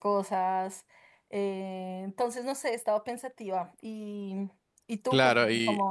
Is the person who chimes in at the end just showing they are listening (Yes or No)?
No